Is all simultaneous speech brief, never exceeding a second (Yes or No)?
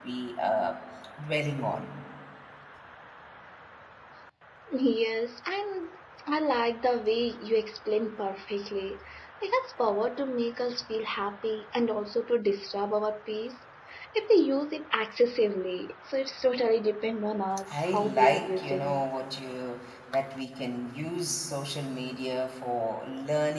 No